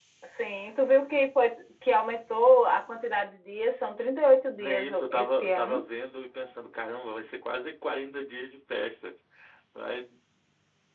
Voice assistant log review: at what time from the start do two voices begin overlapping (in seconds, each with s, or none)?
4.6 s